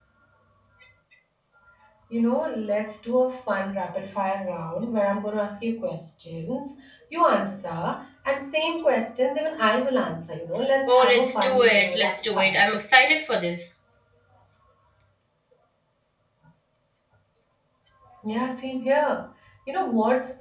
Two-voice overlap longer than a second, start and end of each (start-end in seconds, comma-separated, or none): 10.9-12.5